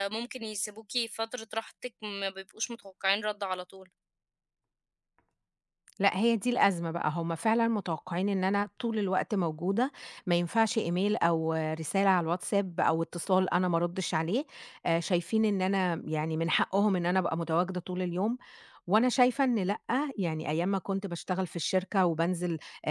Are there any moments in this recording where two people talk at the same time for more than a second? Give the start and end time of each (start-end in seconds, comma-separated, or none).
none